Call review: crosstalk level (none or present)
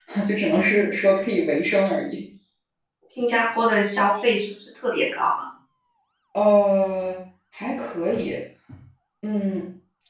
none